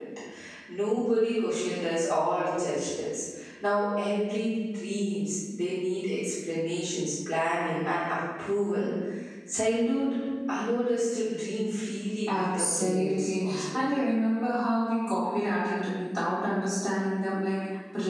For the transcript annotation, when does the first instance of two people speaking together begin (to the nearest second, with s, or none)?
12 s